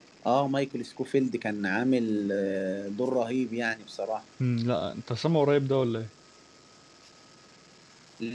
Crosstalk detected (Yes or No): No